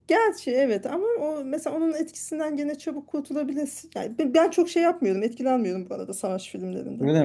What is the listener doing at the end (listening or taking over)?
taking over